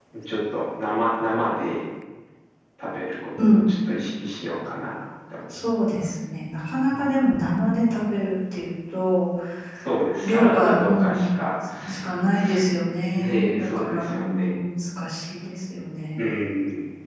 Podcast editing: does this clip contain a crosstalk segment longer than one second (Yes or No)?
Yes